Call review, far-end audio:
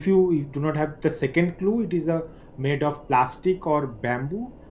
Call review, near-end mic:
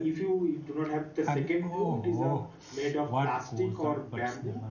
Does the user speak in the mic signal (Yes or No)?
Yes